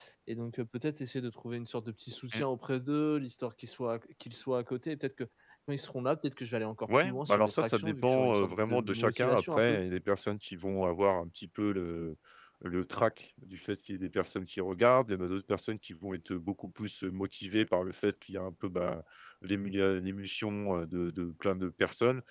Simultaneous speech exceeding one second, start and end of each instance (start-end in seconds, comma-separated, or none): 7.0-9.8